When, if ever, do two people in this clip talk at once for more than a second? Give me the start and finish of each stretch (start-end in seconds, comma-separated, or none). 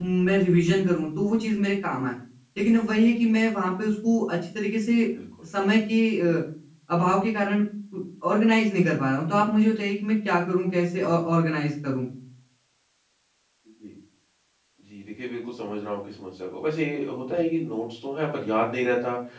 none